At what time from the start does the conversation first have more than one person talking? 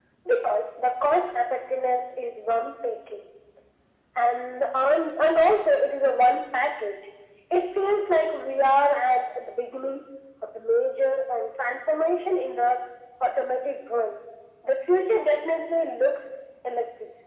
none

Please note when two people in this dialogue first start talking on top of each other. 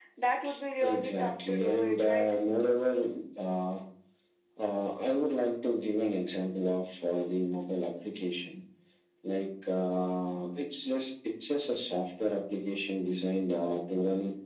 0.8 s

